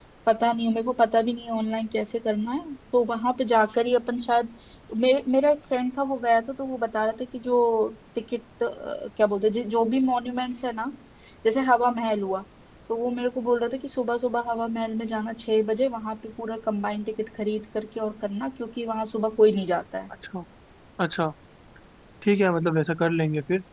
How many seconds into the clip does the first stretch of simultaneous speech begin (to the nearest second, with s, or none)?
none